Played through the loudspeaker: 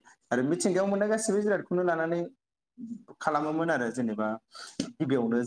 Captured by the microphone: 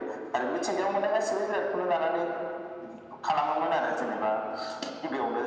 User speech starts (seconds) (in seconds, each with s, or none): none